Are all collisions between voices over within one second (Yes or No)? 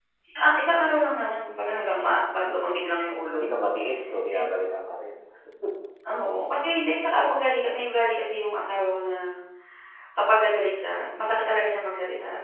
Yes